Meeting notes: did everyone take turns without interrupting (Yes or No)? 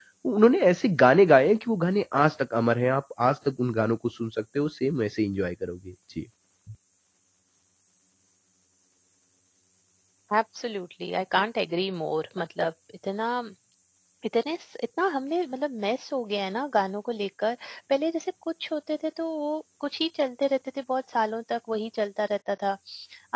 Yes